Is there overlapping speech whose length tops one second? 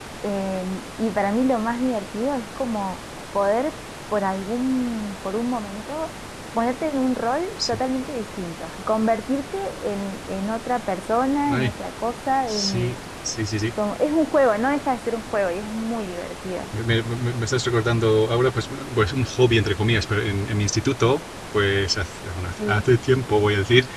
No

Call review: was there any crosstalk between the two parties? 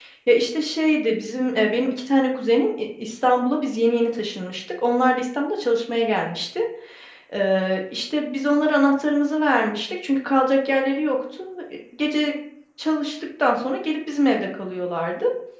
No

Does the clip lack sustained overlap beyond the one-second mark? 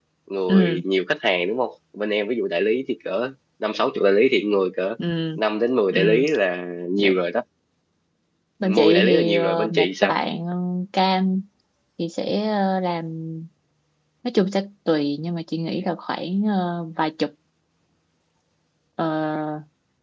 No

